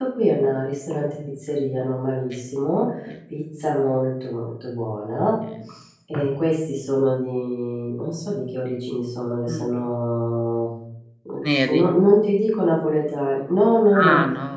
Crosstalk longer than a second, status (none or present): none